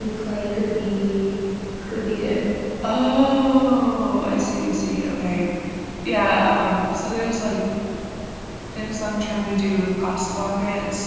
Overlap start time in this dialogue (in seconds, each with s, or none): none